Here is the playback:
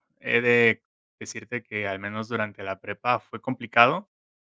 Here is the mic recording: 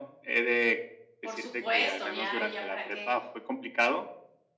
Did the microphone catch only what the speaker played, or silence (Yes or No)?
No